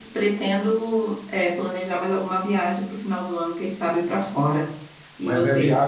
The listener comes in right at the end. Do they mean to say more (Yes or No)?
Yes